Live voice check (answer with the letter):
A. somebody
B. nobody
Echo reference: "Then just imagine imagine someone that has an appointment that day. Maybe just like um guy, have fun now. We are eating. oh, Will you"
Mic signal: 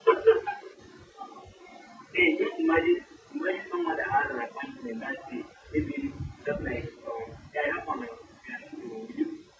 B